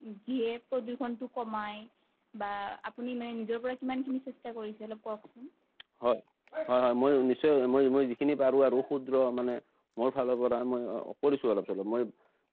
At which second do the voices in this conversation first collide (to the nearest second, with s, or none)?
none